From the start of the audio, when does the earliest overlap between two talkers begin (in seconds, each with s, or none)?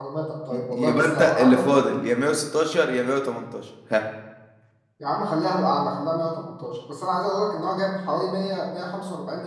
0.5 s